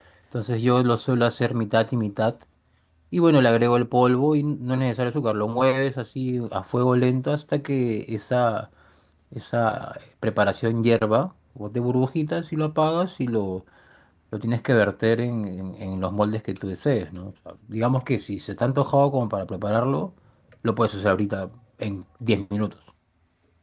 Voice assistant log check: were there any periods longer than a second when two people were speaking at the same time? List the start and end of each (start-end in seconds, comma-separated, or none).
none